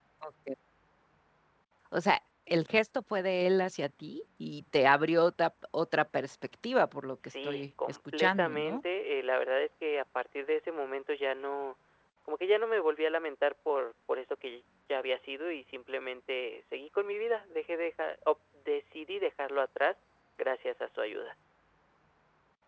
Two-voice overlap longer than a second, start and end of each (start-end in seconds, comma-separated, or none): 7.5-8.8